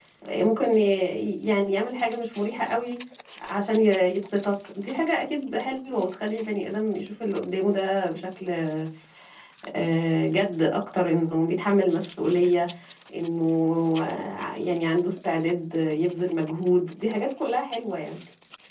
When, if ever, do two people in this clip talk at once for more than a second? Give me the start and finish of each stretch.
none

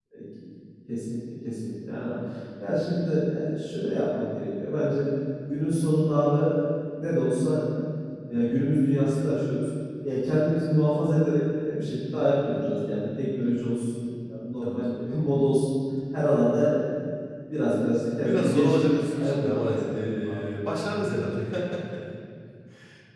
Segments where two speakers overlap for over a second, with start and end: 18.2-20.4

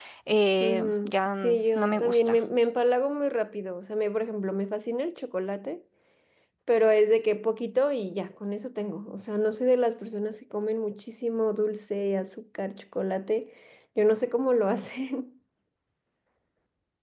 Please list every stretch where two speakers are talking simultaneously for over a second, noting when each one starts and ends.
0.6-2.4

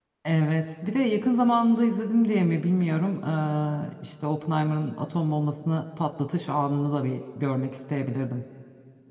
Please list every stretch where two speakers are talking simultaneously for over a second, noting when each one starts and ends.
none

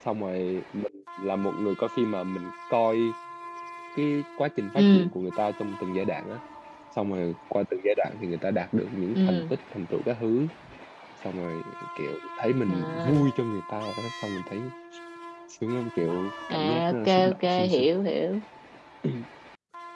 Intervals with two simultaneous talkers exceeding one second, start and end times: 16.5-17.9

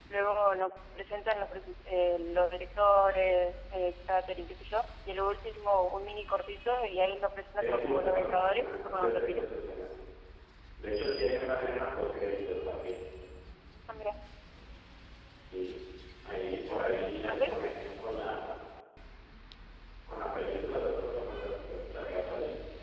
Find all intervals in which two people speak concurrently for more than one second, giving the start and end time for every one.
7.6-9.4

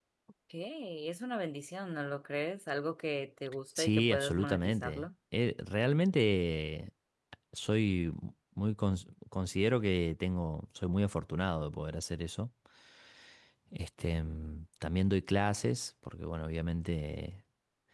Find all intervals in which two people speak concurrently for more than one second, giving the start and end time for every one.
3.8-5.1

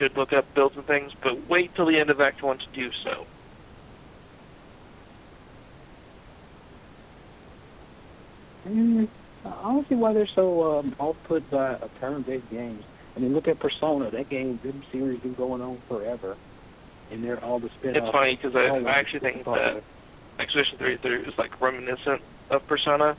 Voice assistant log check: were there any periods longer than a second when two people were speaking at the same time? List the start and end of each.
17.9-19.8

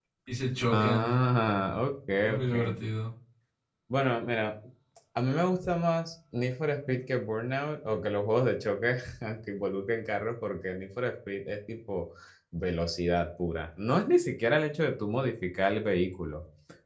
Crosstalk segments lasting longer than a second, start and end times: none

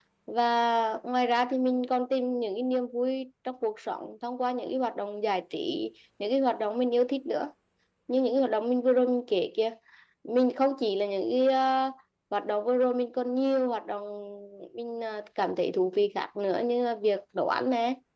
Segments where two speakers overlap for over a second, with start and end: none

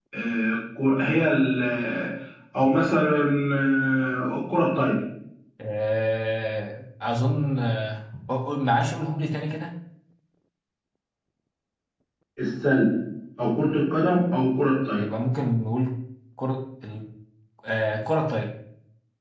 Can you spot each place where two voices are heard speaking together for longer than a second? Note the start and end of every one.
none

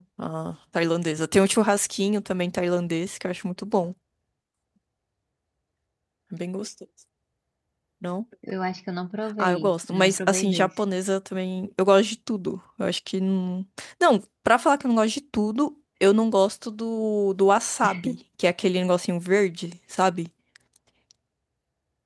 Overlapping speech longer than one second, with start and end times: 9.4-10.7

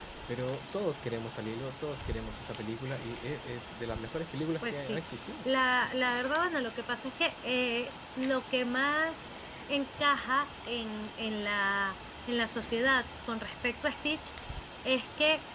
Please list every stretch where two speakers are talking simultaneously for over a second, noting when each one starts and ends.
none

